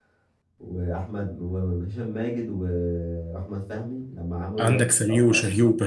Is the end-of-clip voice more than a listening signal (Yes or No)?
Yes